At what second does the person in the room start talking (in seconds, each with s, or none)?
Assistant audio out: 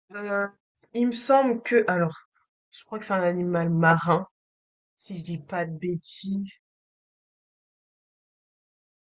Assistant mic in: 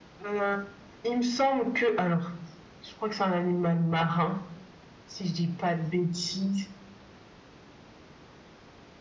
none